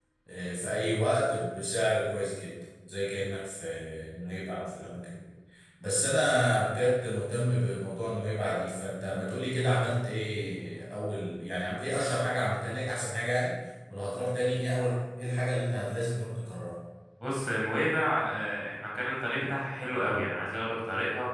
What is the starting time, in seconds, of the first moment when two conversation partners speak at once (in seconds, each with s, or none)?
none